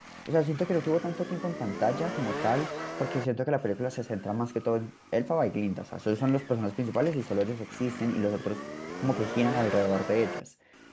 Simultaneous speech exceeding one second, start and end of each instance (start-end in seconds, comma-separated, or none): none